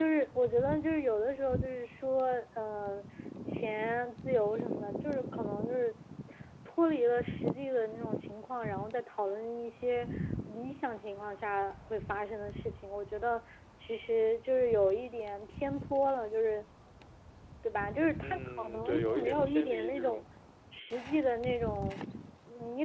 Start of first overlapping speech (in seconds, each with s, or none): 18.2 s